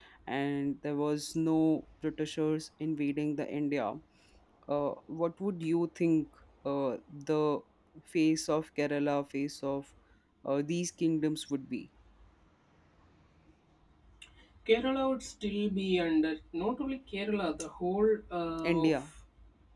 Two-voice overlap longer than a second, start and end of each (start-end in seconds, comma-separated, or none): none